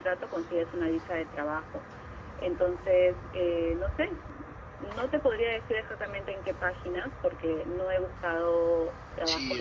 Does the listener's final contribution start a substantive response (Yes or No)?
Yes